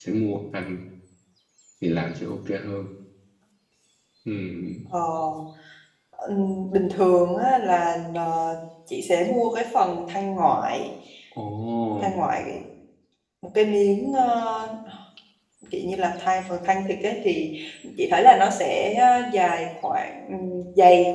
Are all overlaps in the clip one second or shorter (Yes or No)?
Yes